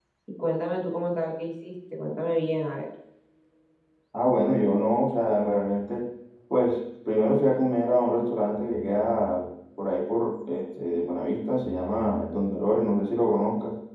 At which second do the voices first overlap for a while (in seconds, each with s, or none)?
none